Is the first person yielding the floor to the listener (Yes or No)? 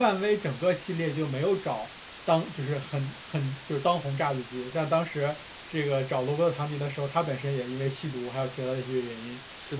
No